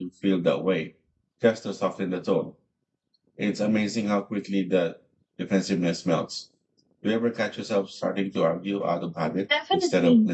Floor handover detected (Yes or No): Yes